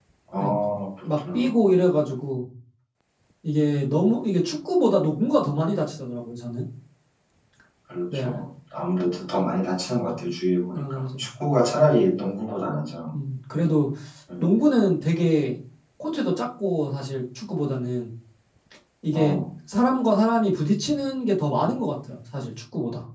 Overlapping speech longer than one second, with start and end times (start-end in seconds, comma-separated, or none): none